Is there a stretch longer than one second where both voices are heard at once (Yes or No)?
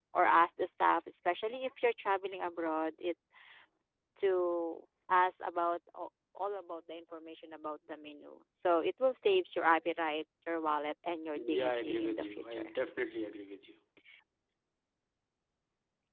Yes